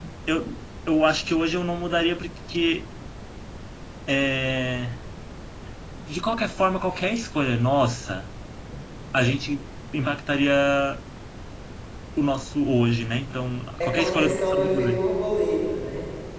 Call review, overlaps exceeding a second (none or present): present